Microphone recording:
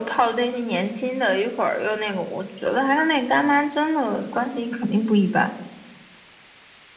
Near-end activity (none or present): none